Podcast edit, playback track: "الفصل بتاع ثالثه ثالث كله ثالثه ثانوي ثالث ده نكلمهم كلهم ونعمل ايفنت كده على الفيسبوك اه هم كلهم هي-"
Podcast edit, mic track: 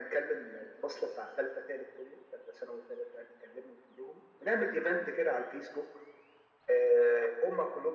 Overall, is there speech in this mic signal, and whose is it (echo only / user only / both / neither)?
echo only